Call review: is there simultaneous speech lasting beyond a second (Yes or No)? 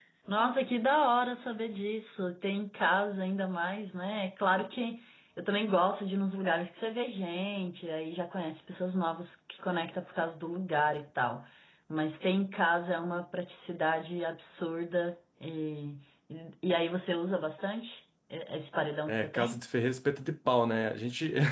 No